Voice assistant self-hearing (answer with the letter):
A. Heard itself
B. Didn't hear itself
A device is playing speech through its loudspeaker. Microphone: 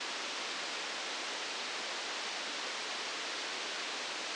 B